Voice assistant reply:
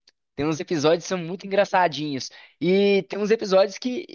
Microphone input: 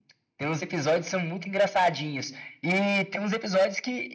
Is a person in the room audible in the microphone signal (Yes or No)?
No